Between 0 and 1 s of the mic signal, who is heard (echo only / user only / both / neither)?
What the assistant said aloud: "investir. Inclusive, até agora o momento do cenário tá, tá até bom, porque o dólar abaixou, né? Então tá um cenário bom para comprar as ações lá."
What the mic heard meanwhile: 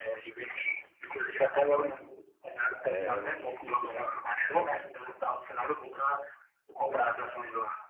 echo only